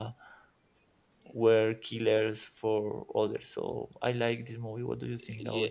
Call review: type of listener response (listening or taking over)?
taking over